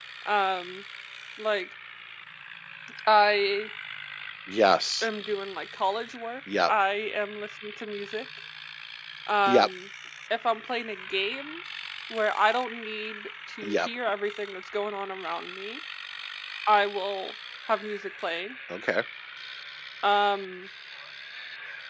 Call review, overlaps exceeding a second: none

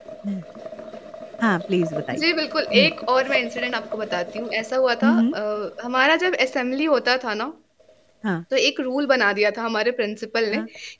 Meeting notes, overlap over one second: none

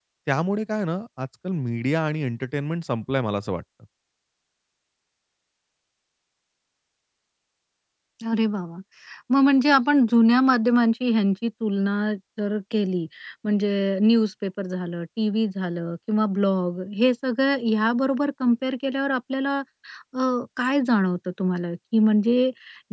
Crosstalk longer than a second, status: none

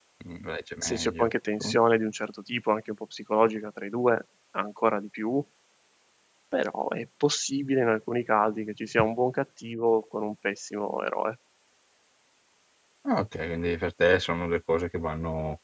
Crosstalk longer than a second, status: none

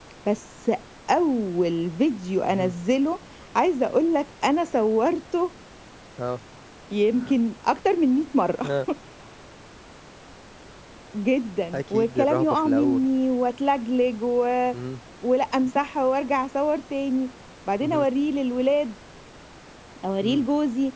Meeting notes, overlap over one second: present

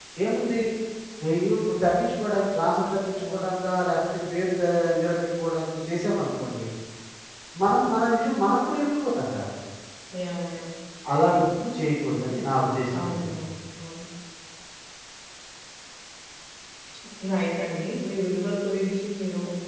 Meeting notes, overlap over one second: none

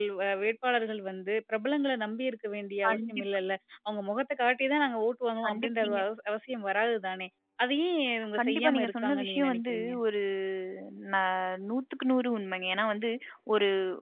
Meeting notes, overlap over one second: present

